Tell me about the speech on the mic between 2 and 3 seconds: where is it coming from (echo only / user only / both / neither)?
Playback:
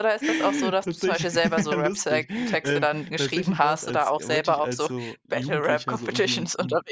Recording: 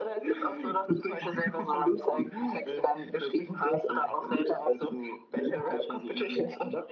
echo only